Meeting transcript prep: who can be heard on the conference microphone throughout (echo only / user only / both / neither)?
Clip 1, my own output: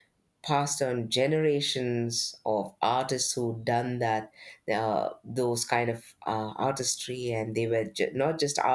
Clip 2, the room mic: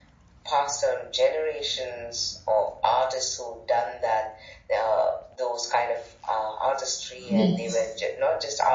both